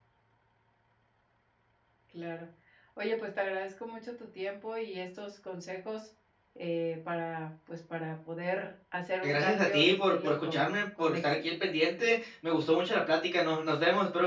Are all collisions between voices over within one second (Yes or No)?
No